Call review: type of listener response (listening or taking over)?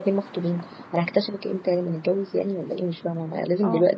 listening